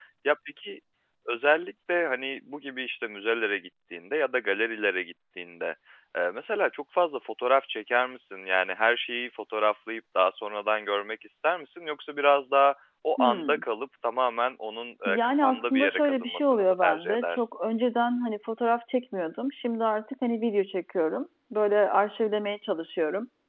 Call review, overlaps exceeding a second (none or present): present